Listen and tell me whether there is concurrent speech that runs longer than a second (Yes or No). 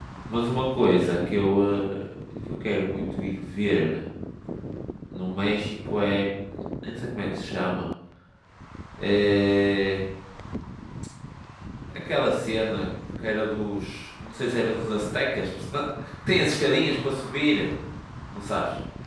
No